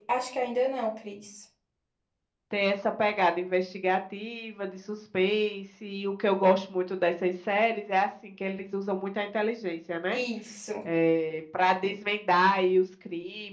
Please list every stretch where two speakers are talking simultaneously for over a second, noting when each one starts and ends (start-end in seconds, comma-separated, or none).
none